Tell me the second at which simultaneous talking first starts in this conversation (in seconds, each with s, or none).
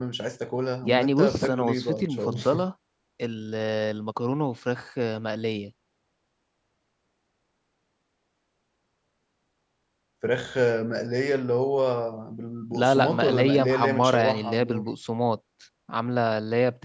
0.8 s